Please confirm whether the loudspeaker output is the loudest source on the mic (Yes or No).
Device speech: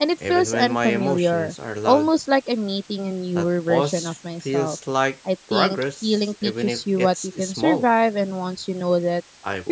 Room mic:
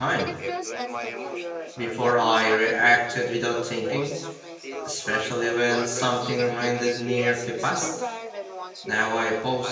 No